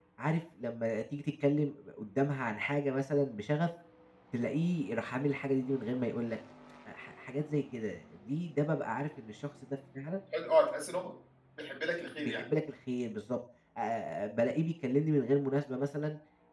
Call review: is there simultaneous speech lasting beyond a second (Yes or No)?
No